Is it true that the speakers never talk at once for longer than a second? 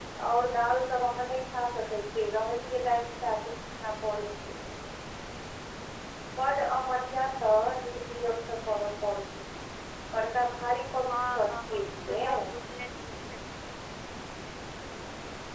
No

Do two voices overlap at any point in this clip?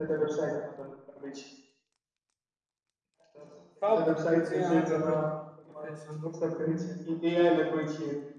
Yes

